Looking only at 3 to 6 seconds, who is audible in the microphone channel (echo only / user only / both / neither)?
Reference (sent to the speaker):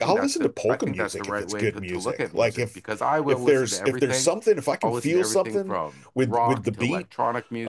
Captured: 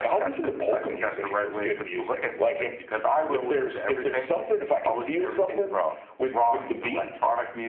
echo only